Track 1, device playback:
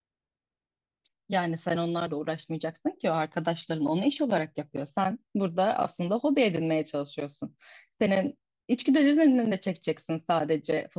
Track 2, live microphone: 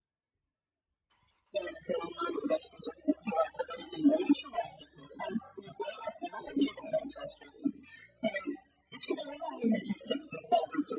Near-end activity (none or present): none